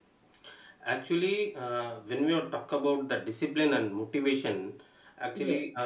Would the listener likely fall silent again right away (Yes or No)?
Yes